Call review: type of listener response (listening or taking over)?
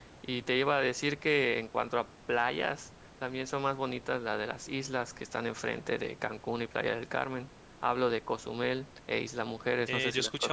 taking over